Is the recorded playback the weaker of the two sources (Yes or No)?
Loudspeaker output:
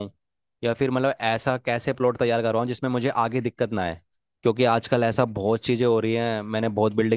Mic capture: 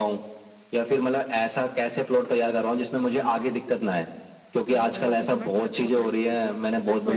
No